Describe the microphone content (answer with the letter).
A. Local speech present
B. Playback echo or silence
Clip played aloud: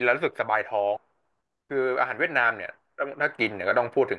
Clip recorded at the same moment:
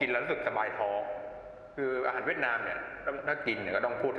B